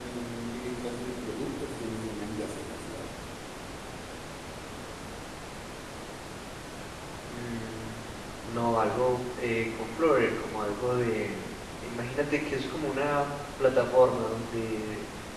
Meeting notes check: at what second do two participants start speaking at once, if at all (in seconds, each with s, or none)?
none